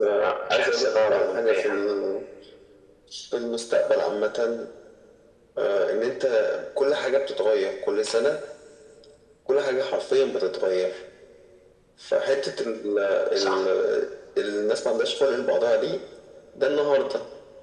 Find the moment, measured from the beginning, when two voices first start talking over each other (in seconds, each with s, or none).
0.5 s